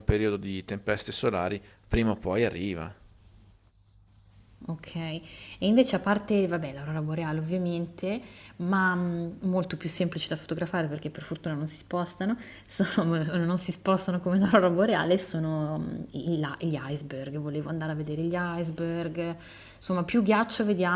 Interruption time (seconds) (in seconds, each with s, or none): none